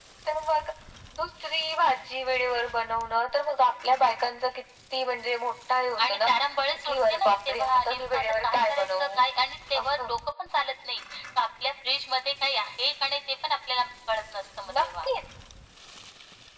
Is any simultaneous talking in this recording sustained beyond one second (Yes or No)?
Yes